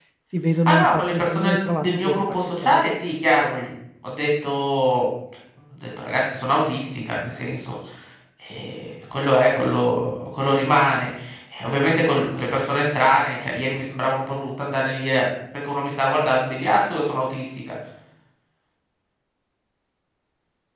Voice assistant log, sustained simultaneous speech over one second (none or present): present